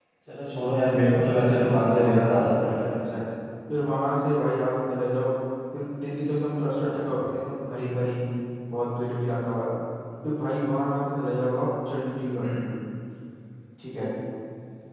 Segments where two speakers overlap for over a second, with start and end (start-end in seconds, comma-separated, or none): 1.2-3.2